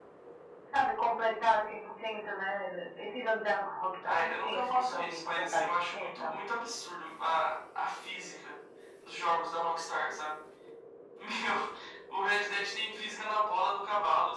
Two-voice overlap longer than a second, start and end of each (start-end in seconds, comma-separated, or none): 4.0-6.4